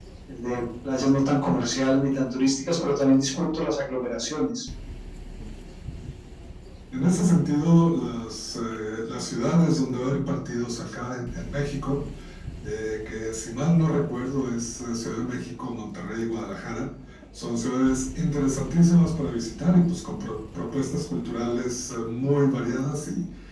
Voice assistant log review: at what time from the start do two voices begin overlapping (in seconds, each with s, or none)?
none